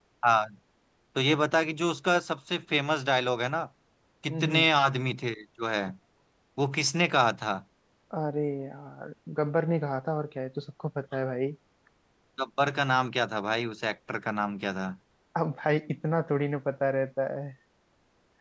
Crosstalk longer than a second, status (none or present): none